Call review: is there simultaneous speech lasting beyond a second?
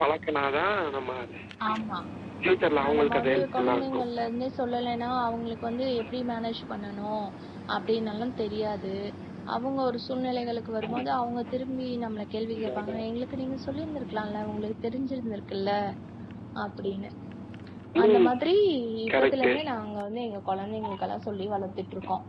Yes, from 2.8 s

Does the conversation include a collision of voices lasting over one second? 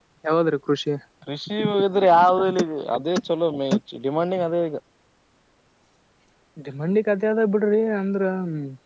No

